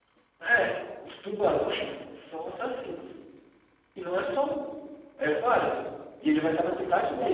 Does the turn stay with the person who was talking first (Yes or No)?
Yes